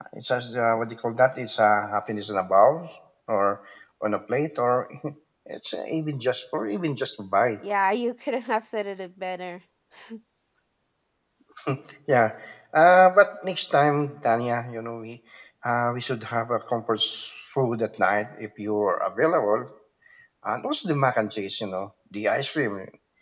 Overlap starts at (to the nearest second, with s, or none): none